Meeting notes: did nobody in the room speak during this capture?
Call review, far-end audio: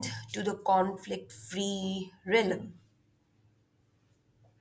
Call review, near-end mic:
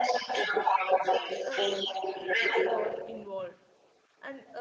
No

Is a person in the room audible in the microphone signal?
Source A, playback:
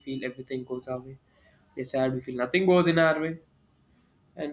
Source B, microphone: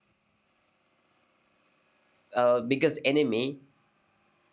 Yes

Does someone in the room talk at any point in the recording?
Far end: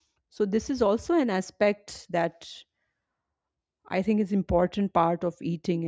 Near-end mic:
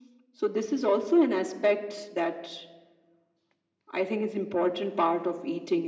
No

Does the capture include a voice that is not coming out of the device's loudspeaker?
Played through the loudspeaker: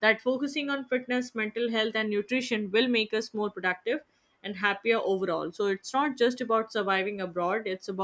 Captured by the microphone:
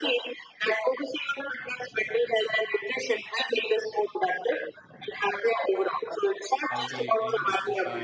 Yes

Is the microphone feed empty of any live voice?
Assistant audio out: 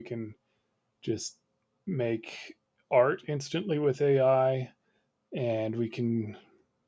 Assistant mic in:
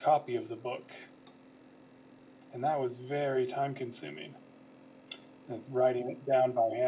No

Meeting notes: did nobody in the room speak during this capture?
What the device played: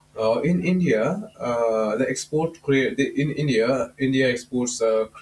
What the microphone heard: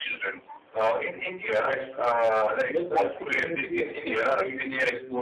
No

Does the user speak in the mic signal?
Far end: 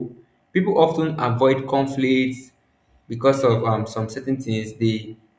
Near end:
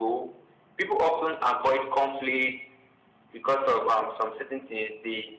No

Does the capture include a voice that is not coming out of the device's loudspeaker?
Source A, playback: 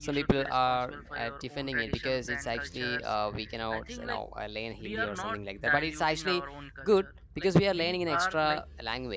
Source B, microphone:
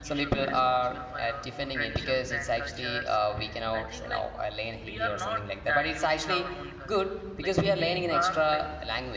No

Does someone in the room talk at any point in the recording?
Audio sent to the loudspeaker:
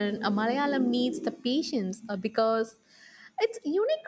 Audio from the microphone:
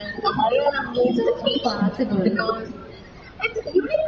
Yes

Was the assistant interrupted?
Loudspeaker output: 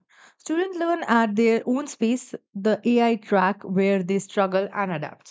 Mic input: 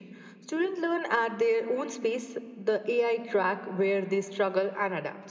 No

